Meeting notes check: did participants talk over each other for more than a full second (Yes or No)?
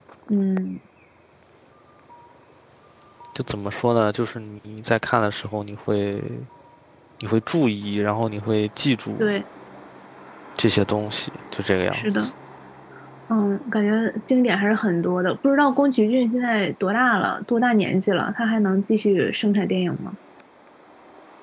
No